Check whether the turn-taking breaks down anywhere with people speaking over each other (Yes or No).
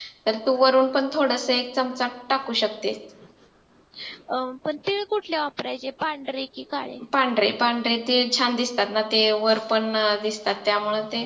No